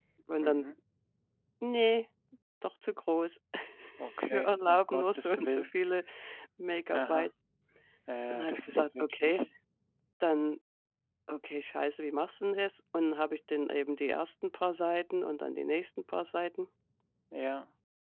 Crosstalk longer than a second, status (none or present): present